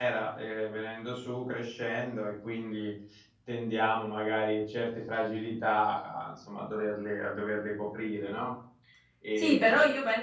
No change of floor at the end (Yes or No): No